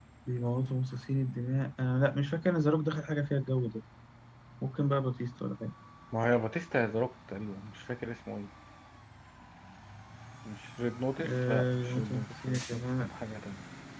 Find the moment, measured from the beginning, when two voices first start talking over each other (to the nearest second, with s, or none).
11 s